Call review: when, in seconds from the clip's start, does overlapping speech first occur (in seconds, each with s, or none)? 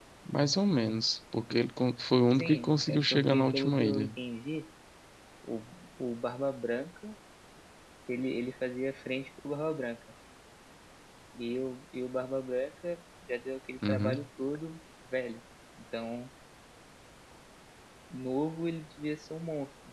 2.4 s